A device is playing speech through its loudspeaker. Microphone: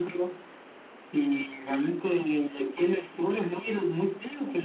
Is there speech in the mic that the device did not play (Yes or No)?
No